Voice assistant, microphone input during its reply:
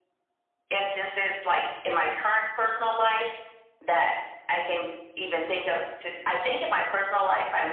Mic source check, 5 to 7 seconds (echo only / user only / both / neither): echo only